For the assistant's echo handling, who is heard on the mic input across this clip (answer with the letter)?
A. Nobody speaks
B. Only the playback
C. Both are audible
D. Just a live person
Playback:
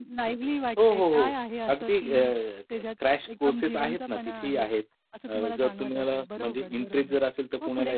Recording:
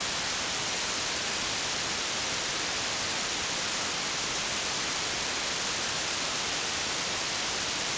A